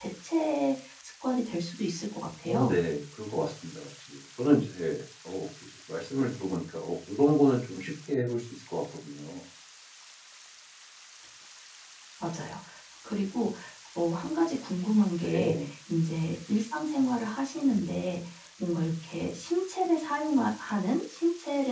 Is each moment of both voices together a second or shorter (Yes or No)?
Yes